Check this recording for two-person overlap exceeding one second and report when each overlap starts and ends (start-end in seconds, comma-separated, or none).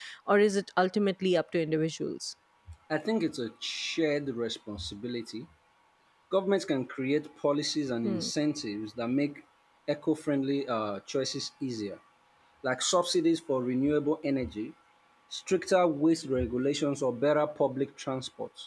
none